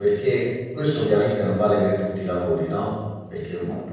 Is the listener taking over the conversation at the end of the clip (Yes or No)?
No